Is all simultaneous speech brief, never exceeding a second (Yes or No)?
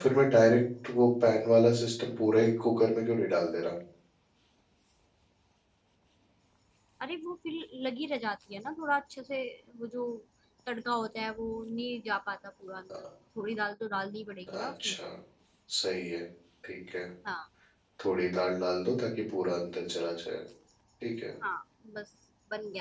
Yes